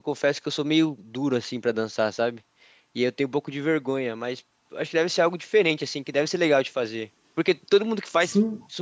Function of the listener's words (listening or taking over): listening